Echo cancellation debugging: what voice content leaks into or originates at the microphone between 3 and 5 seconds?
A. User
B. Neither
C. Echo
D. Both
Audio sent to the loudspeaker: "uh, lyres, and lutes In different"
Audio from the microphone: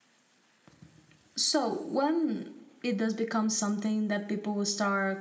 A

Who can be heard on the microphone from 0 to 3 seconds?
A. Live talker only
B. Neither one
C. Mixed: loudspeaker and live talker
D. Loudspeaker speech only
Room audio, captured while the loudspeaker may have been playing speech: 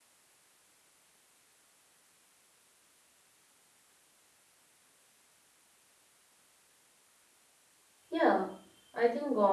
B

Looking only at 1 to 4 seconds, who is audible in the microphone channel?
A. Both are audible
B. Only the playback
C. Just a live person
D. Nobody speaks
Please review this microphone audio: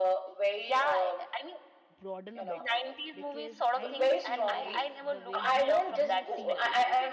A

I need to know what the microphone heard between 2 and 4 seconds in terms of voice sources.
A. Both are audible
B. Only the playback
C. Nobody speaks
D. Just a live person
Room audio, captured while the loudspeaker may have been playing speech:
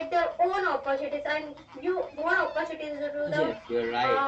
A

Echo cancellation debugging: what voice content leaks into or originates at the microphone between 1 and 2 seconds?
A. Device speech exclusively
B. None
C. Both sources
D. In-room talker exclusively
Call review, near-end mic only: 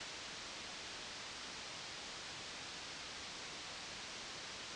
B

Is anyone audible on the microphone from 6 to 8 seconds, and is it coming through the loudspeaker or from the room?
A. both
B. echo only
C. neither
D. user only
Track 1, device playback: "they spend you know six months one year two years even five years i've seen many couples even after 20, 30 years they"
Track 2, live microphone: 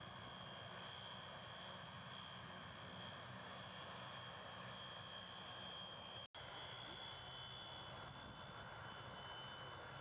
C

